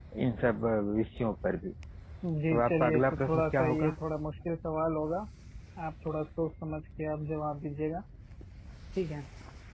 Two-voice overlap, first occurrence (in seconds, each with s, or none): 2.5 s